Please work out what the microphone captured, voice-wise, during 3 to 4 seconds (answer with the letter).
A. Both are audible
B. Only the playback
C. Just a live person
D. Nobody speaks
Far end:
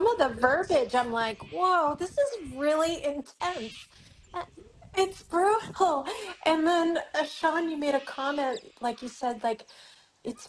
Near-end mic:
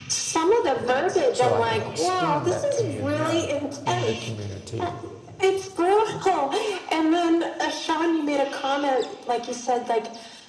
A